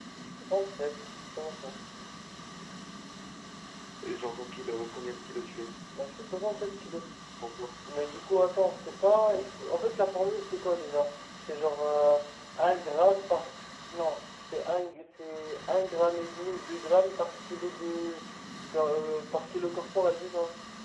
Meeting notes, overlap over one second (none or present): none